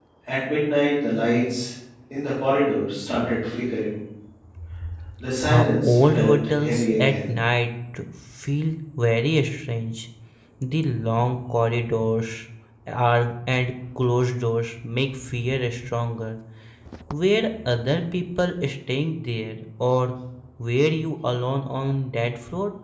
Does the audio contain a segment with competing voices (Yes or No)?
Yes